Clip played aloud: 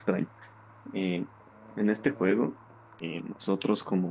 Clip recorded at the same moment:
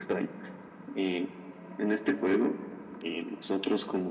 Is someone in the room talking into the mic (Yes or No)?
No